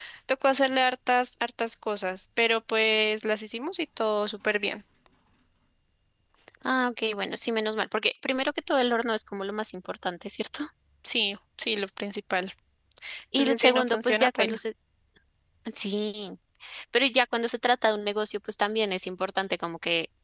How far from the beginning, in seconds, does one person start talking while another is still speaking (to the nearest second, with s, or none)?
13 s